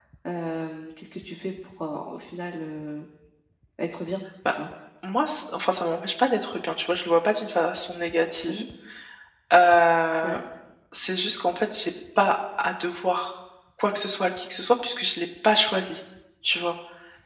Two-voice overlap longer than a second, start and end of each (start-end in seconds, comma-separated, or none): none